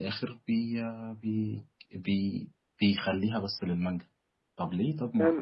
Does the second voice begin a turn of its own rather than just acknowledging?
Yes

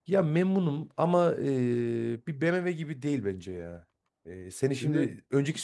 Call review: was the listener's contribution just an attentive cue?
Yes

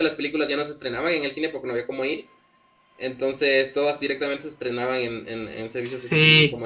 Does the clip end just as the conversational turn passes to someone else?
Yes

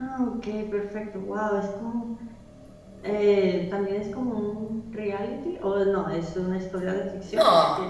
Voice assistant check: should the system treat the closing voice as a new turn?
Yes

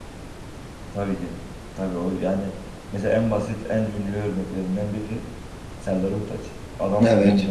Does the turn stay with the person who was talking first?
Yes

